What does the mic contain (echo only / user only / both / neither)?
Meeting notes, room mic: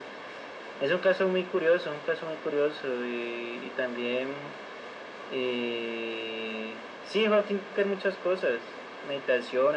echo only